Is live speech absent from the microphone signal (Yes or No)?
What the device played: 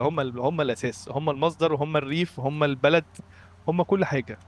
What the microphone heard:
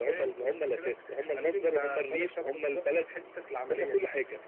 No